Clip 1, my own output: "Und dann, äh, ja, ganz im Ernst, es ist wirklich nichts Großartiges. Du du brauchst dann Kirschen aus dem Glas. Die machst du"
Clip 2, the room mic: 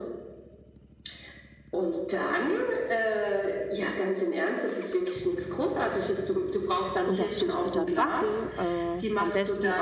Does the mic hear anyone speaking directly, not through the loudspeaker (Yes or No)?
Yes